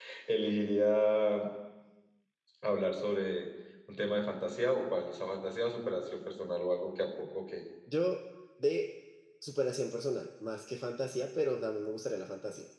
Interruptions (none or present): none